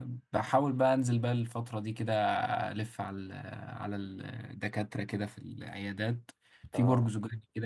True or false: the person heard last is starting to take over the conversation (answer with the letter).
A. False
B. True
A